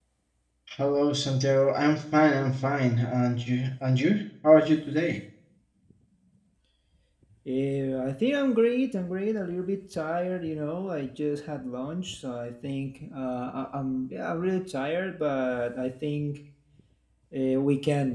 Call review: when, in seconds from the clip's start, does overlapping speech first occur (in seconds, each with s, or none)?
none